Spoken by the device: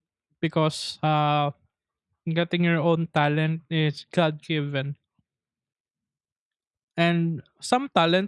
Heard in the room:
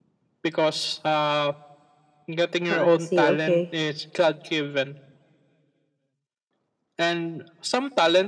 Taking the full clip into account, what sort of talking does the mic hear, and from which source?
both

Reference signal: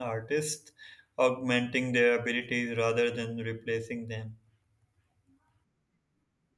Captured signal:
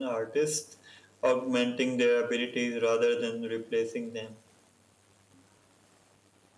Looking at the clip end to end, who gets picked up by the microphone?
echo only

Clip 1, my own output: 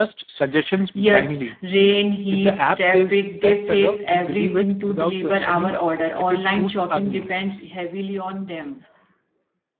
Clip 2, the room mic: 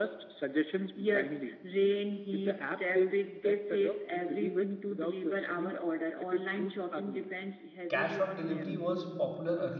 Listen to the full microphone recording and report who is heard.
both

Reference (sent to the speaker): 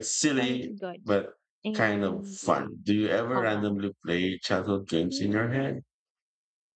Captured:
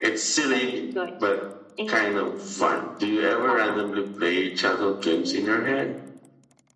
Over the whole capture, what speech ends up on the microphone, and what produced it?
echo only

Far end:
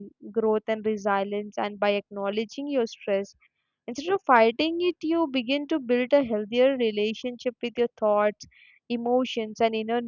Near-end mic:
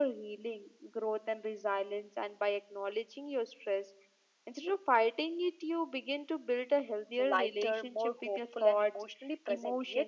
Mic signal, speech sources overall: both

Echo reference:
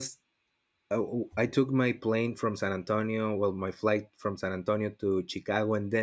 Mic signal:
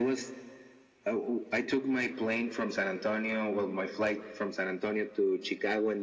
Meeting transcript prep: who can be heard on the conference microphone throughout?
echo only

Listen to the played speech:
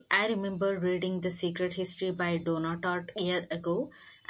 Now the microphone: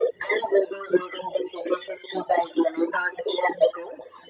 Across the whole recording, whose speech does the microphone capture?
echo only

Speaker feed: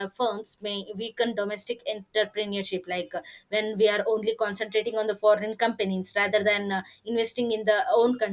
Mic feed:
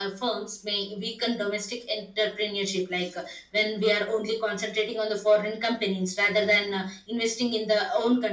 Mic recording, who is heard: echo only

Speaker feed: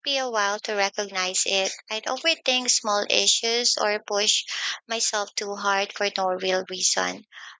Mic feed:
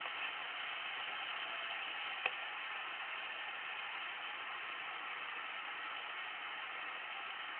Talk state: neither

